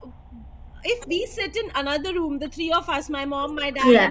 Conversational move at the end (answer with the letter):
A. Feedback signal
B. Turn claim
A